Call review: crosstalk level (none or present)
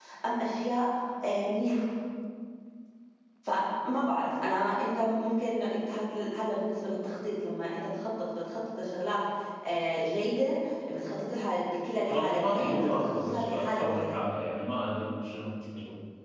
present